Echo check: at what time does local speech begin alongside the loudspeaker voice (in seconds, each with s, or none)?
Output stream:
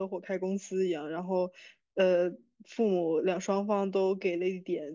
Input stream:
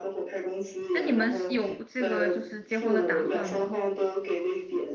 0.9 s